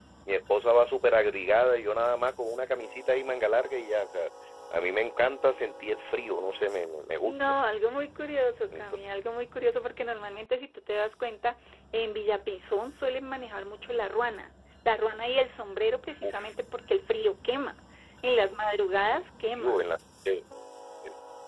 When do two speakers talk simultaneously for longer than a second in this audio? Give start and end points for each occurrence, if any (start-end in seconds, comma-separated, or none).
none